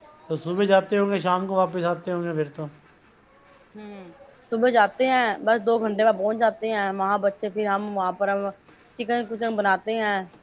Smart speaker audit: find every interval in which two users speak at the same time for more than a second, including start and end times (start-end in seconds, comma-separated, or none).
none